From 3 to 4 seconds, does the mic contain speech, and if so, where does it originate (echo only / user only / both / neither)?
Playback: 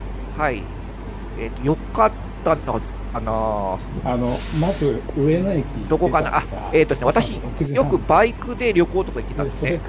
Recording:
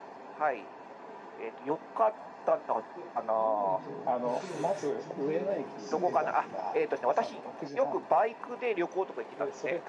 both